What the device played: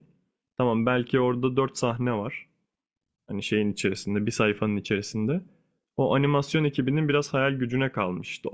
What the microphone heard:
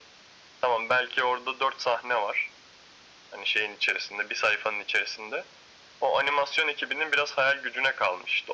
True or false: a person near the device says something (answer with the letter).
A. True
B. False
B